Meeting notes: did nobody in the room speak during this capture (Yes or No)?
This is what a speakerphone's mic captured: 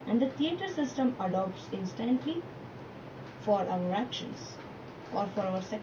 No